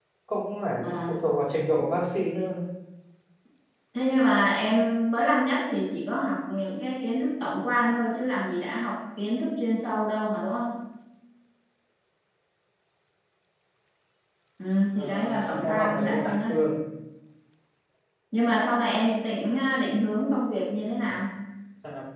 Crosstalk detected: Yes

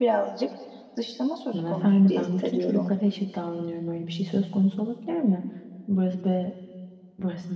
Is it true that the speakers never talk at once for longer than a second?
No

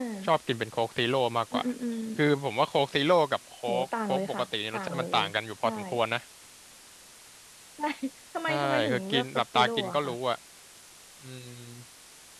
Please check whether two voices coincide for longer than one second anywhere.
Yes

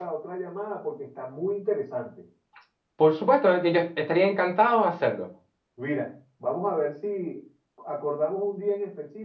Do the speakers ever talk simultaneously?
No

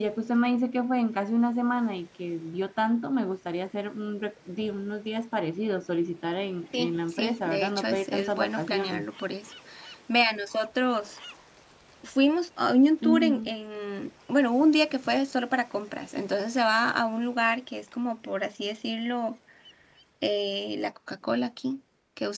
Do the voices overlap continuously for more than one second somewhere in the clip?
Yes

